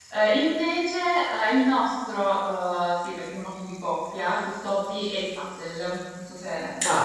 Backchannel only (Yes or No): No